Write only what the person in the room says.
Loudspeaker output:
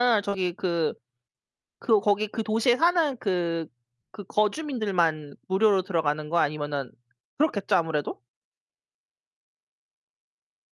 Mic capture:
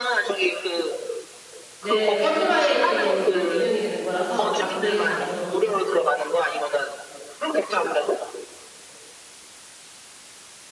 네 펀드 라이징으로 이제 운영이 되는 거라서 다 도네이션 받아서

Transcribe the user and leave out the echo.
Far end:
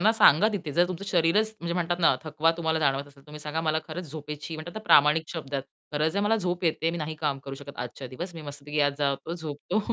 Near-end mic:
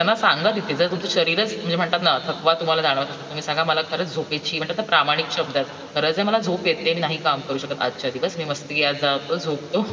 none

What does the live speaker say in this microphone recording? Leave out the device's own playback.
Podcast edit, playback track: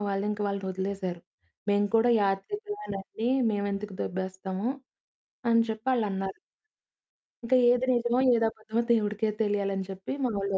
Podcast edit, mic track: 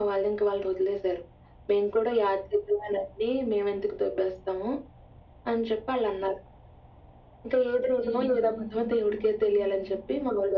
హ్మ్.

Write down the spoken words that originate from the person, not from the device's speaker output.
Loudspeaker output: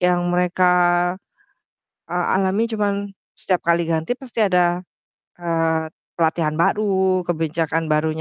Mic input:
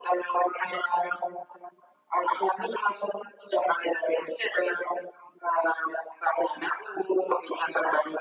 none

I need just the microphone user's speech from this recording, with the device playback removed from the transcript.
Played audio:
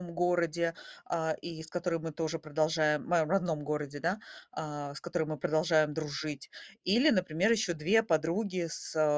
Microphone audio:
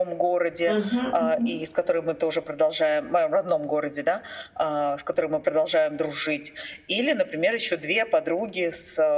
Мгм мгм.

